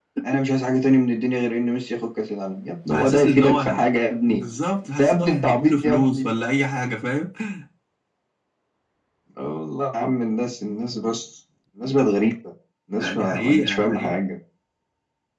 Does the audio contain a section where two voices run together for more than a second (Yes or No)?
Yes